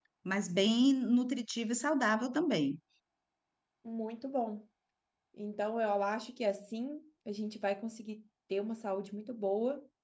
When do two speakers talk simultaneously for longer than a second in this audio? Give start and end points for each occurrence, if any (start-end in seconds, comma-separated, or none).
none